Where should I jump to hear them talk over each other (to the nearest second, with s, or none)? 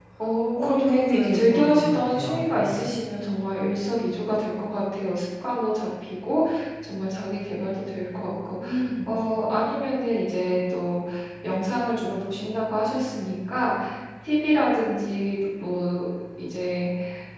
1 s